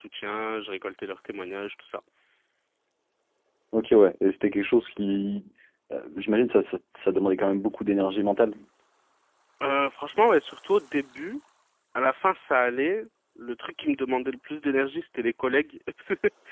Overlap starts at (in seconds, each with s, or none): none